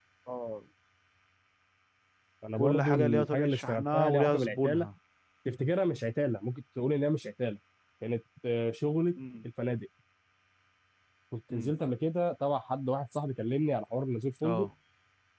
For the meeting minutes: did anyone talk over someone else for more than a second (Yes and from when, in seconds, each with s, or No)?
Yes, from 2.6 s